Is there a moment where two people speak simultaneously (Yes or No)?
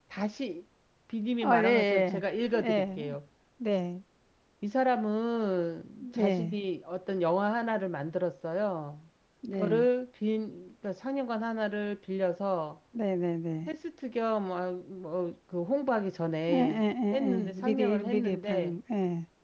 Yes